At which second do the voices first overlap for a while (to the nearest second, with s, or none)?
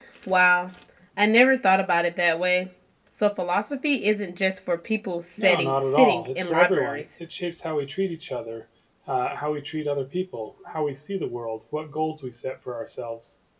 5 s